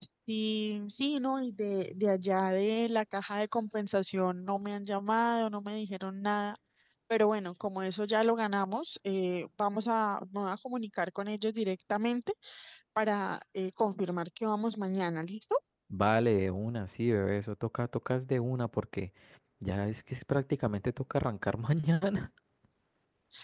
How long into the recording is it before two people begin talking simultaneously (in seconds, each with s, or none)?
none